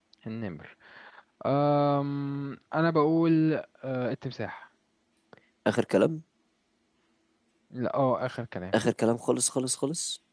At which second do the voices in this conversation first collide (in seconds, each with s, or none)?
none